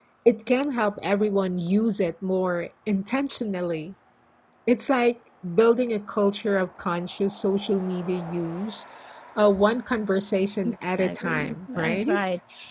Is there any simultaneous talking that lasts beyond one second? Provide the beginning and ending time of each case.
10.6-12.2

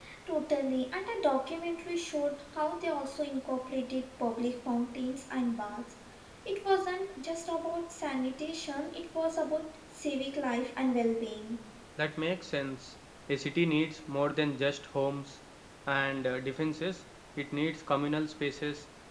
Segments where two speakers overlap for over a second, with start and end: none

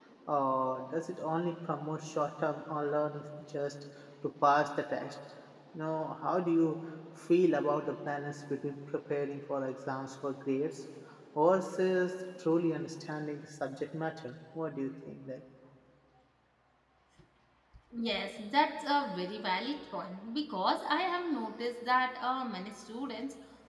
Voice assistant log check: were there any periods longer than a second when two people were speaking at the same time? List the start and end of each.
none

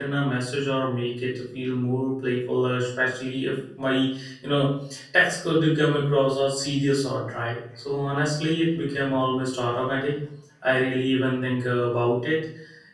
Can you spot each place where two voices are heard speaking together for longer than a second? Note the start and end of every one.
none

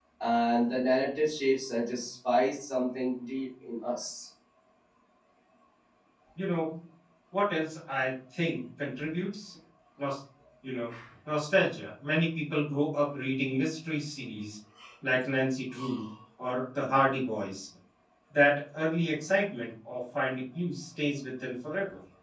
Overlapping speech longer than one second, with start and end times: none

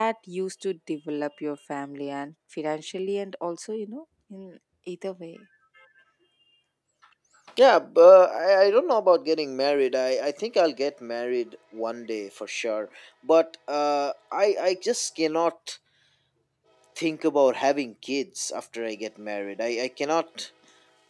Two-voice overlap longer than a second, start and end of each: none

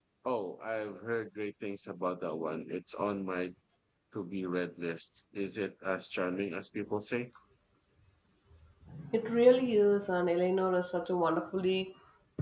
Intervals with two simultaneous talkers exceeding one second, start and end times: none

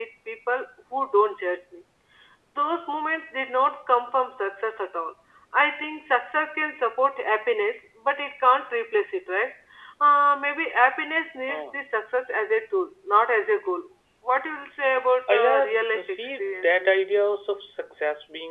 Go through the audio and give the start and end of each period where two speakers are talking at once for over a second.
15.3-16.7

